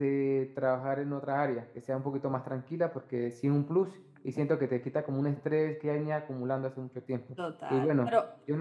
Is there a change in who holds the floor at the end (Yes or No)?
Yes